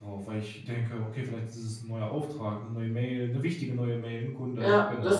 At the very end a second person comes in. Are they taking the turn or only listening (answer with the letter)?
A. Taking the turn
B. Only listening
A